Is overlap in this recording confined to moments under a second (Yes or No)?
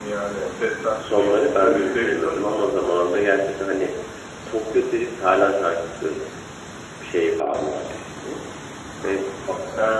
No